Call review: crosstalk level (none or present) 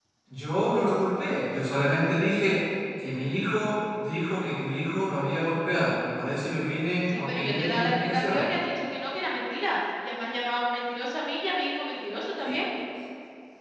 present